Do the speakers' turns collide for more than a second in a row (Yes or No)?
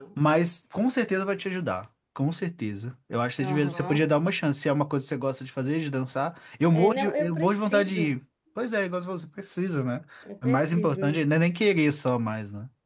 Yes